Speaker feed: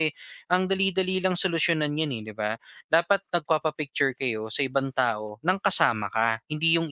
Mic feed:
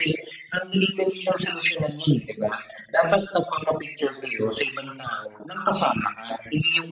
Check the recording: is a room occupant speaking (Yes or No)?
No